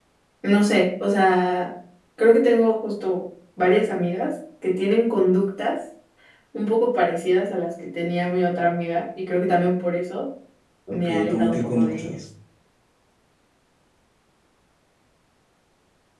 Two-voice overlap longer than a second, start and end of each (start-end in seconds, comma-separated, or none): 10.9-12.1